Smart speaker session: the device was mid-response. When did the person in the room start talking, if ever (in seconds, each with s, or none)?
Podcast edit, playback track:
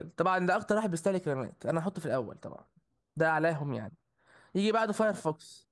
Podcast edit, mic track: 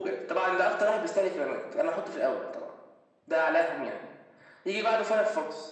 none